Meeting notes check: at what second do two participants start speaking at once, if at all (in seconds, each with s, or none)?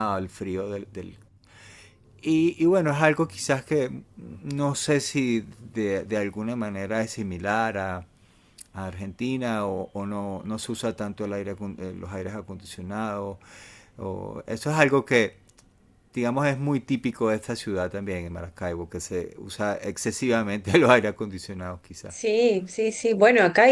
none